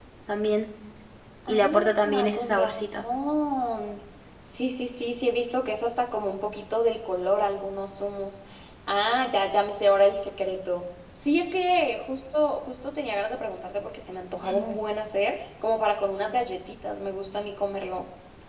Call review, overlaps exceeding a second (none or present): present